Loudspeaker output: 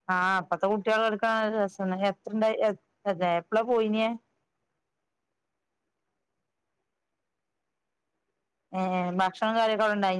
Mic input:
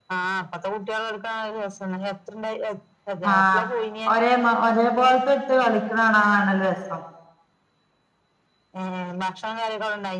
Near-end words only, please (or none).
ആഹ് ഒരേ മ ഒരേ പോലത്തെ ഇട്ട് കളിക്ണ കാണാനാണല്ലോ രസം.